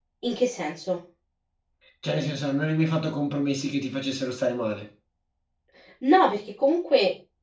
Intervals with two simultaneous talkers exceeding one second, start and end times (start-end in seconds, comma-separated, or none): none